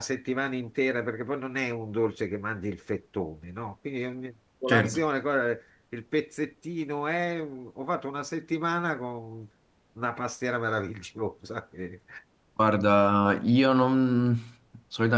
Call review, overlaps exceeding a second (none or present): none